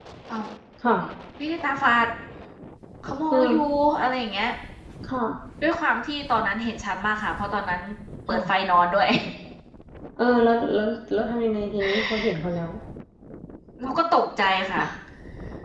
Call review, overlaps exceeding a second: none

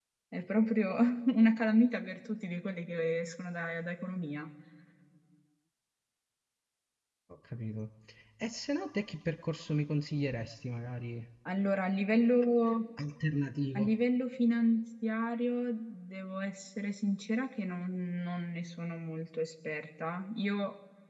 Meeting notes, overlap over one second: none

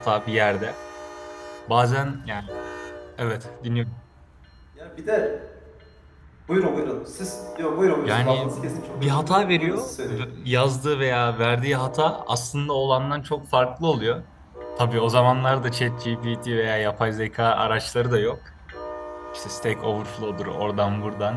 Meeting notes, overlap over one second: present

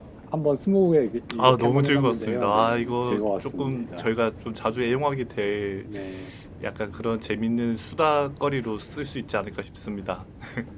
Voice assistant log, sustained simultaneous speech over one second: present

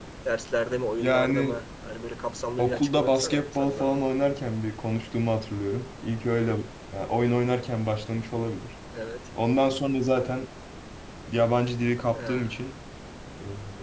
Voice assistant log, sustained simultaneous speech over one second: present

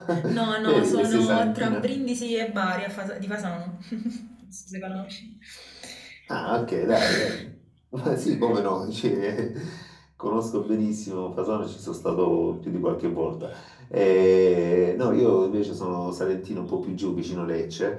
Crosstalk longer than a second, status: present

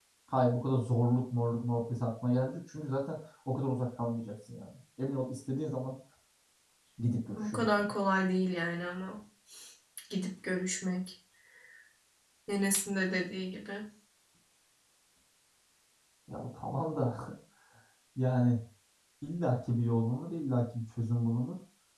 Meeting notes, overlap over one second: none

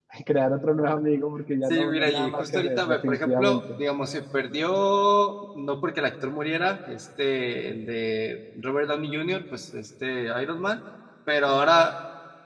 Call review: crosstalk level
present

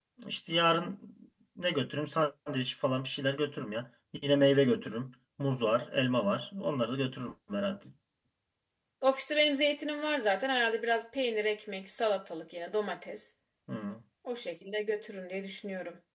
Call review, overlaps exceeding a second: none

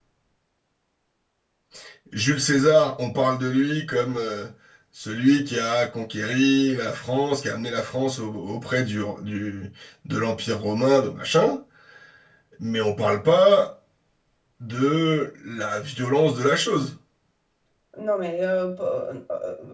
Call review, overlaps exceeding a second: none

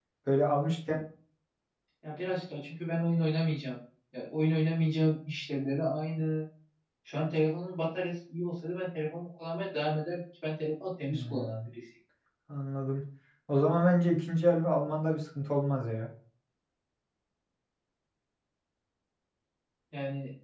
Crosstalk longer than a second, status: none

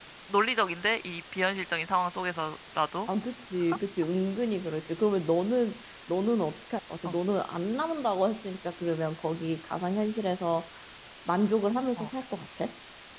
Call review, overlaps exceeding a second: none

